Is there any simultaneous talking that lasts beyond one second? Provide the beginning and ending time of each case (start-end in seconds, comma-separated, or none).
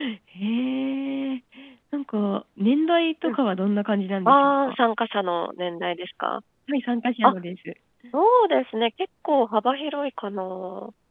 none